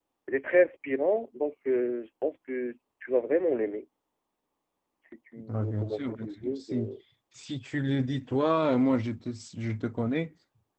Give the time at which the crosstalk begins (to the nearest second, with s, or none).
5 s